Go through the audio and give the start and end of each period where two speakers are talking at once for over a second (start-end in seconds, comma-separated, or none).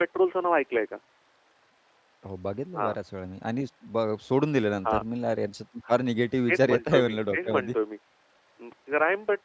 6.5-7.7